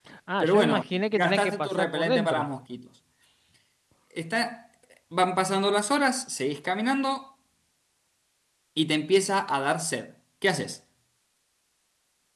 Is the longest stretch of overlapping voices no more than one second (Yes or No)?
No